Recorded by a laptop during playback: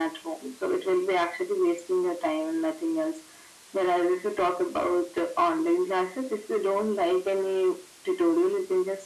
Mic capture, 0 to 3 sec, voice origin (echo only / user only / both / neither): echo only